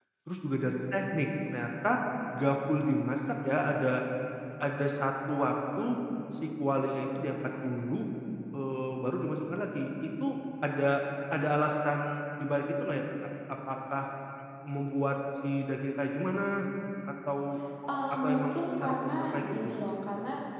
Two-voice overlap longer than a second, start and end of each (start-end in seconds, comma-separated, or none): 18.1-19.7